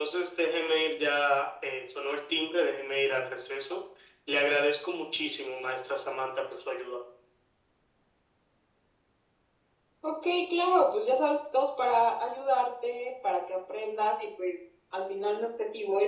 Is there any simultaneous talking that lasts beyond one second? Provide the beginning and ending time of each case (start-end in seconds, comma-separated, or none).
none